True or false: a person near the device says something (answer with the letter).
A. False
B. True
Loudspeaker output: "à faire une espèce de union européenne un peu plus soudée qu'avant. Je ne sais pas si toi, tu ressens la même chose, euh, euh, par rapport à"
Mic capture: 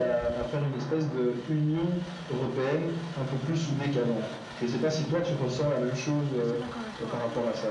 B